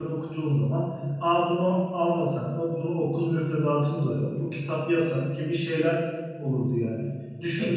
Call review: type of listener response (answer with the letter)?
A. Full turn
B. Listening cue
B